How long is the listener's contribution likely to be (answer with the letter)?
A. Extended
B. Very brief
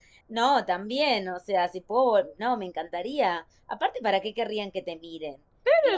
A